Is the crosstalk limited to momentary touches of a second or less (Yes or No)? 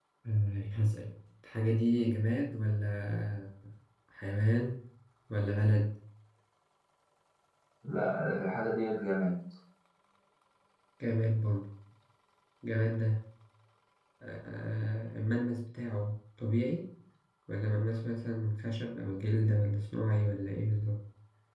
Yes